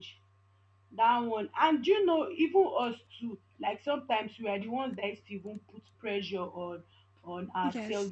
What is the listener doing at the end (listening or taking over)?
listening